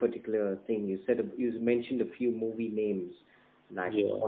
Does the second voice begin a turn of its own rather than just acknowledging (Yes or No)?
No